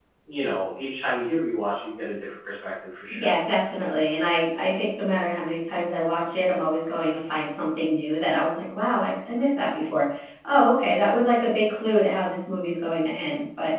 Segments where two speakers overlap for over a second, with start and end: none

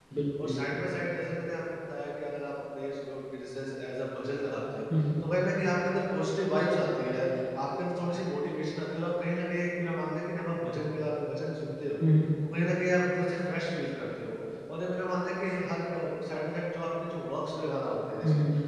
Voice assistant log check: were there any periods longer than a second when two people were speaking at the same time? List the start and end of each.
none

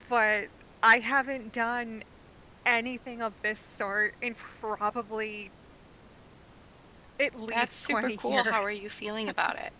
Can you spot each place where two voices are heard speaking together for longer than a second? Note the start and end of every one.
7.5-8.7

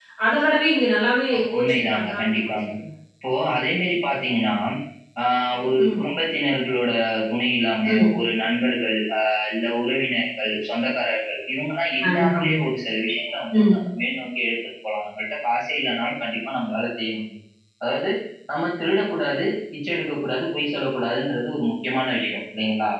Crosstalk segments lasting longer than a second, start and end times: 1.3-2.7

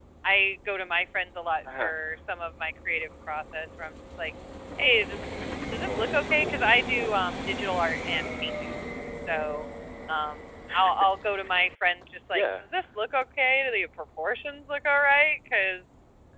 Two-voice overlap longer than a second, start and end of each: 5.8-7.2

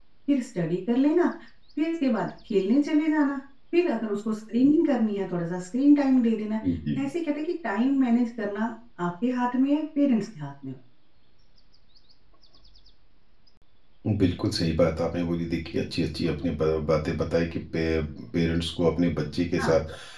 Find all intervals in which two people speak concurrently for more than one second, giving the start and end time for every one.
none

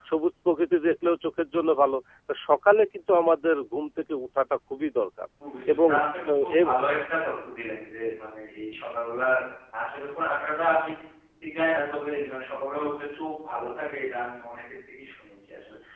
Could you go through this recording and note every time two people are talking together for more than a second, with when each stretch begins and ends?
none

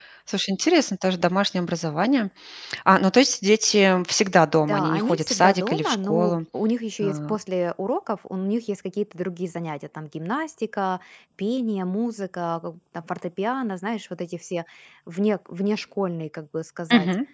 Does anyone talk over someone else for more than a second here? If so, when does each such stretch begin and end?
4.7-6.4

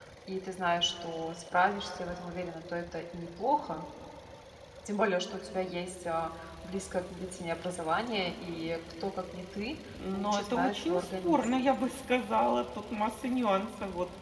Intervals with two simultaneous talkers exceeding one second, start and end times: 10.1-11.7

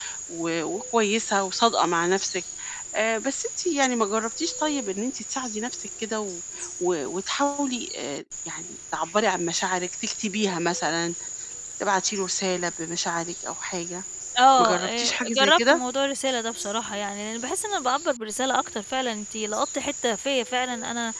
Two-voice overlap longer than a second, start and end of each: 14.6-15.8

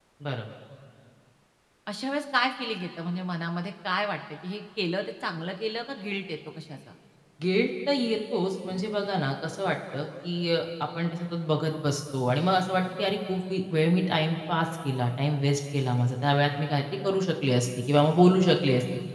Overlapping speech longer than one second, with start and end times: none

